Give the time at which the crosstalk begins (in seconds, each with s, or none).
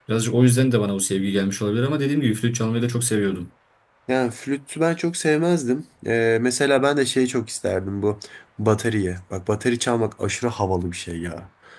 none